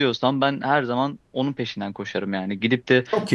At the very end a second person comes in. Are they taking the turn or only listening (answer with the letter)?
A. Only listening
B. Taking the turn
A